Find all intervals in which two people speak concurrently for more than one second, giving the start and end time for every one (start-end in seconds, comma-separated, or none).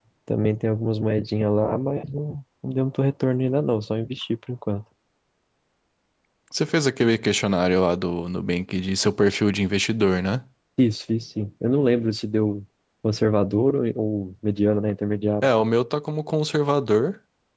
none